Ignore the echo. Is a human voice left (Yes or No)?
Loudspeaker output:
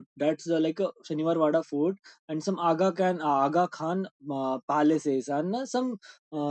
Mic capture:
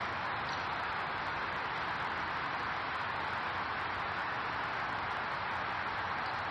No